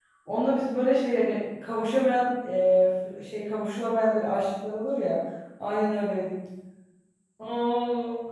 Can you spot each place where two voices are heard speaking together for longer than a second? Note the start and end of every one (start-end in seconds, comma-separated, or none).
none